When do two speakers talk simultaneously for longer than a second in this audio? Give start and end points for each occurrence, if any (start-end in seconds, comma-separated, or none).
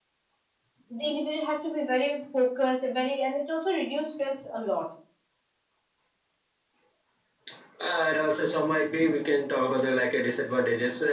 none